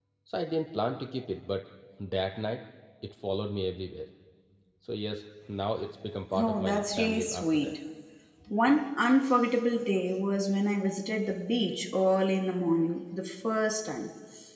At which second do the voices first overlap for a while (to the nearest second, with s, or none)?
6 s